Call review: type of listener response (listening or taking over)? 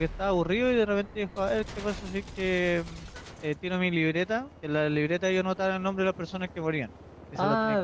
taking over